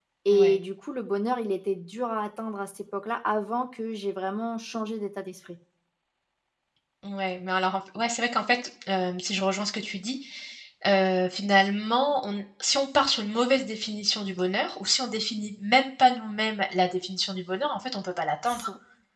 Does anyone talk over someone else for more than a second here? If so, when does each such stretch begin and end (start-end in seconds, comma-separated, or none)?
none